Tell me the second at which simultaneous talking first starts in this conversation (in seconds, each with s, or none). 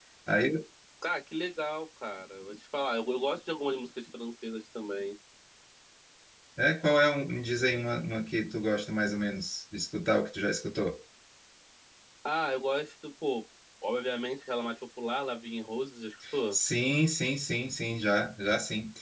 none